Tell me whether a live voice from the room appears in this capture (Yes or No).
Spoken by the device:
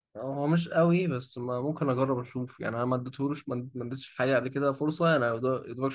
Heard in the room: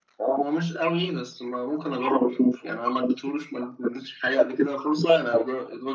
No